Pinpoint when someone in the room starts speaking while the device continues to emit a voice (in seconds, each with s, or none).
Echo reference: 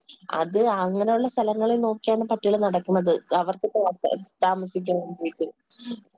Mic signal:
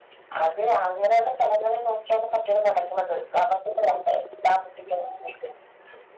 none